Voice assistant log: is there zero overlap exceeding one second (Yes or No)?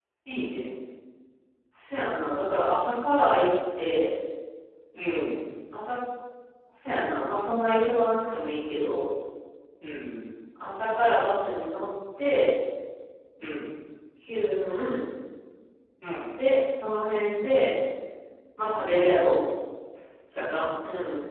Yes